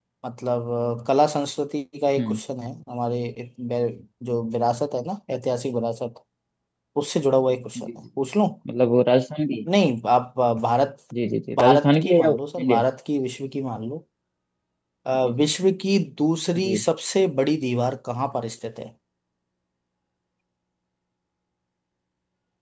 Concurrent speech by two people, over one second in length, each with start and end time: 11.6-12.8

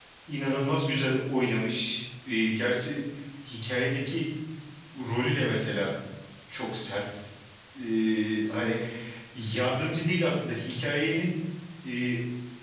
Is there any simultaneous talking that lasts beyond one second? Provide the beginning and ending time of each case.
none

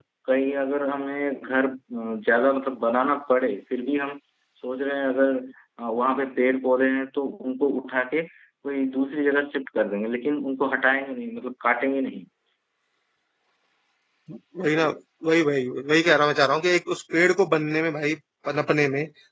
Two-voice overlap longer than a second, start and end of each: none

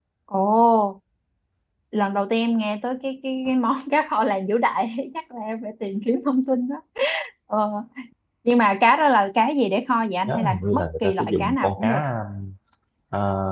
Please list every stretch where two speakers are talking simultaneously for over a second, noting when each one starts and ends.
10.3-11.9

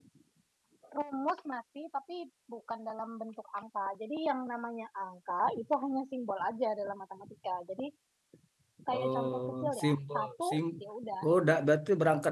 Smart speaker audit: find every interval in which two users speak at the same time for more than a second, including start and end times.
8.9-10.6

